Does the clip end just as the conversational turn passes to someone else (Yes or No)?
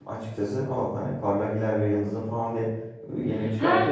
Yes